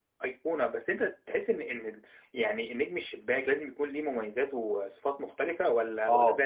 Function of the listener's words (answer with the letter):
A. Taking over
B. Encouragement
A